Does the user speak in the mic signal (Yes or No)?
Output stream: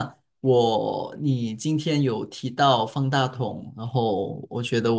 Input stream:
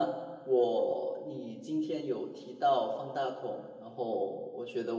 No